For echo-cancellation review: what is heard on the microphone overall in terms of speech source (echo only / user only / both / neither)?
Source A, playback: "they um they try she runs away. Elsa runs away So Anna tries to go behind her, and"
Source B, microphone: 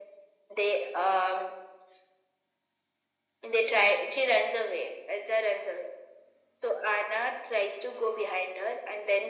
echo only